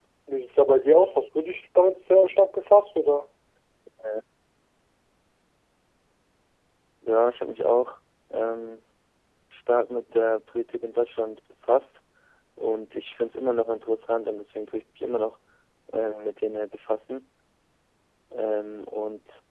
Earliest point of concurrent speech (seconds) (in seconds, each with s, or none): none